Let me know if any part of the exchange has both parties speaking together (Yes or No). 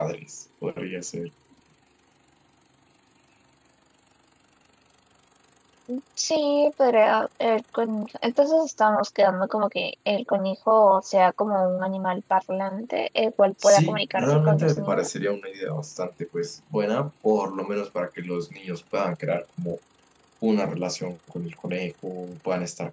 Yes